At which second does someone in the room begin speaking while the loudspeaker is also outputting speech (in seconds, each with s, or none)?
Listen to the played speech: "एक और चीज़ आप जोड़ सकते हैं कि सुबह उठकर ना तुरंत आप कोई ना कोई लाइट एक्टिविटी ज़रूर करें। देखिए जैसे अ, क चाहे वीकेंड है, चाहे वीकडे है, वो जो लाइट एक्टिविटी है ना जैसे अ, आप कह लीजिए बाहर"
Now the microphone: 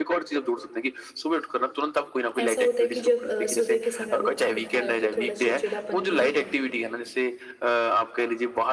2.4 s